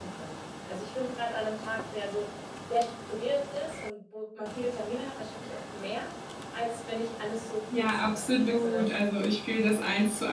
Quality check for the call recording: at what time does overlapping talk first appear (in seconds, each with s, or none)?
7.7 s